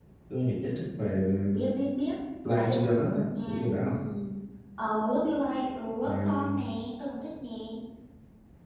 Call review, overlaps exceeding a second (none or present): present